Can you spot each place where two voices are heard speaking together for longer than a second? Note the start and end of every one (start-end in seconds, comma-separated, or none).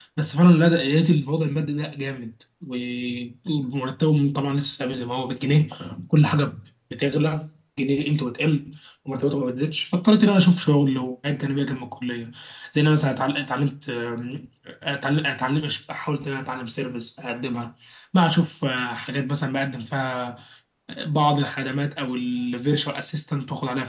none